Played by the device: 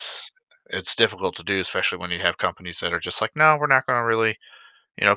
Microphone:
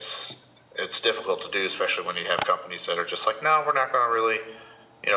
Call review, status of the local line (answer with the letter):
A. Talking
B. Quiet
B